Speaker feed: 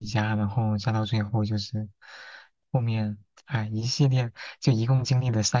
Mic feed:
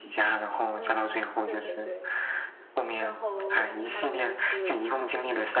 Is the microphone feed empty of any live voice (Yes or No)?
No